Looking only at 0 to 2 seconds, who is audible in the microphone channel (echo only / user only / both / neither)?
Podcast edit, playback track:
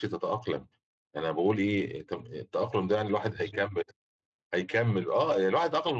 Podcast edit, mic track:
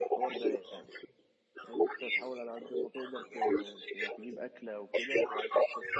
both